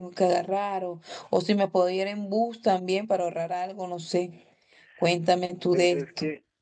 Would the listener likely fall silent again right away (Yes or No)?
No